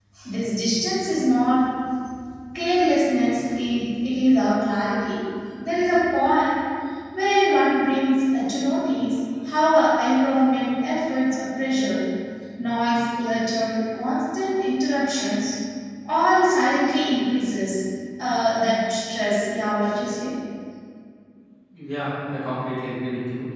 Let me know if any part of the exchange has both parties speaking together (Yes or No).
No